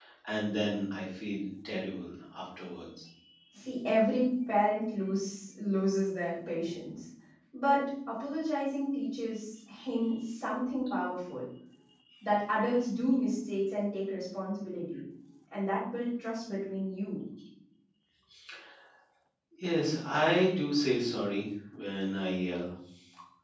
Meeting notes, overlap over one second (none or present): none